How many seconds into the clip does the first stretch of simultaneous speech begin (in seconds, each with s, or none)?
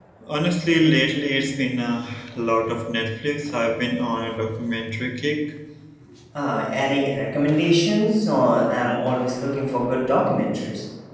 none